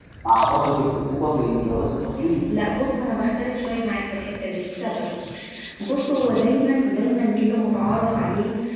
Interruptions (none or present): none